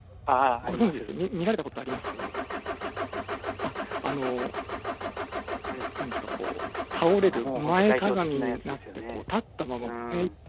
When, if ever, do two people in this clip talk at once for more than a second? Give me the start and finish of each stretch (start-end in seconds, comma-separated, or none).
7.4-9.2